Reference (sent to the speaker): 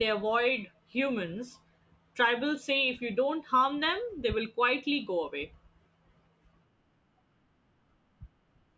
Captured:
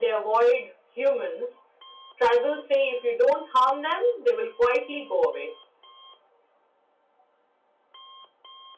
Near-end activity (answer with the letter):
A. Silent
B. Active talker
A